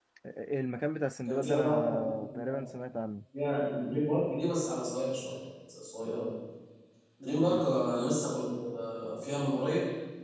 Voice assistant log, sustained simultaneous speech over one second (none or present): present